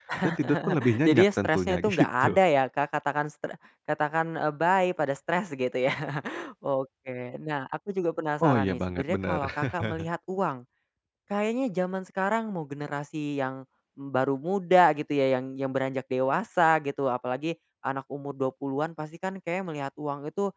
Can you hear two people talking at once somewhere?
Yes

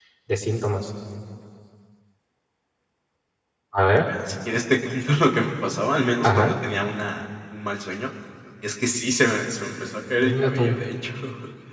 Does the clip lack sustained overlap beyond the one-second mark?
Yes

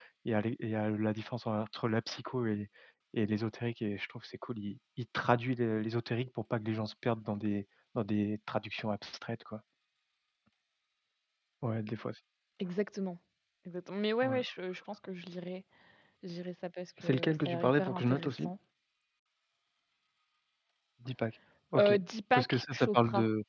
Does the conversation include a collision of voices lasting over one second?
Yes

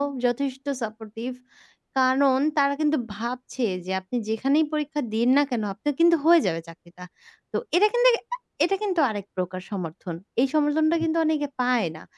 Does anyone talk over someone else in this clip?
No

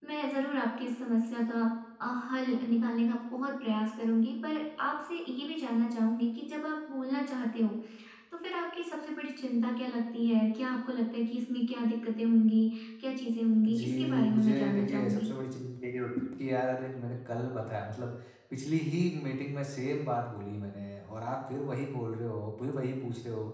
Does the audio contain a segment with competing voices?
Yes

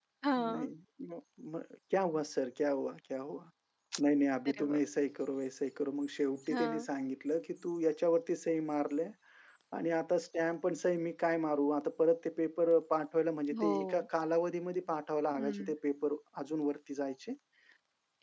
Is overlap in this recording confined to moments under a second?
Yes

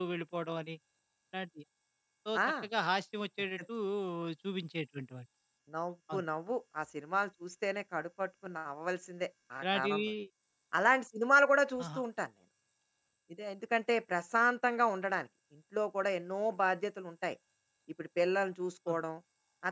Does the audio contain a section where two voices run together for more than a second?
No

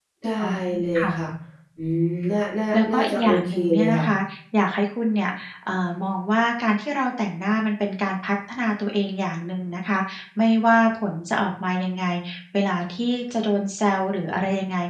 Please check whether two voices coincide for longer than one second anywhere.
Yes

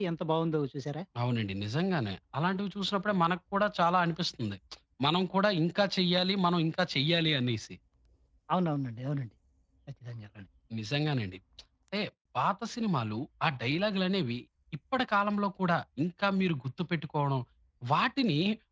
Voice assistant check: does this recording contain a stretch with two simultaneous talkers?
No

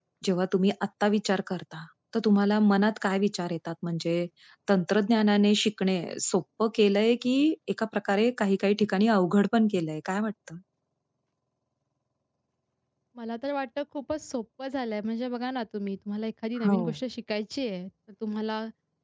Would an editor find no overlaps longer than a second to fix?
Yes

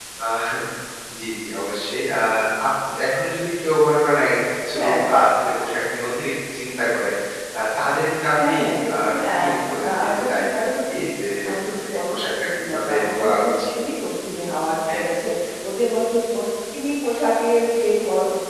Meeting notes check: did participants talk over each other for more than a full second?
Yes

